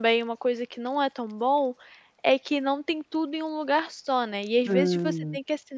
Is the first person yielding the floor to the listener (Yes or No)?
No